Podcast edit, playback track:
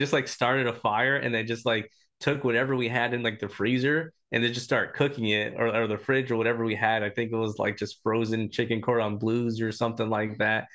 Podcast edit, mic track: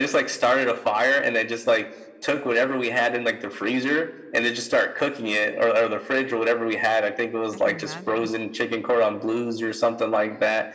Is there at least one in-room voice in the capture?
Yes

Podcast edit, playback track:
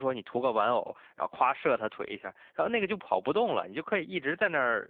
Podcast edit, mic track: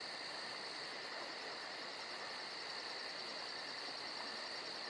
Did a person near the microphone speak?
No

